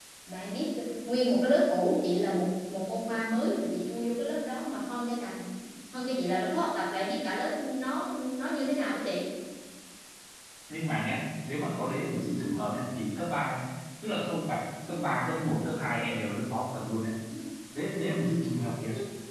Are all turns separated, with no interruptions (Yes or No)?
Yes